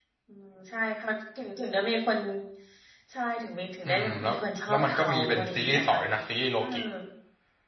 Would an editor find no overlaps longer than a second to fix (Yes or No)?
No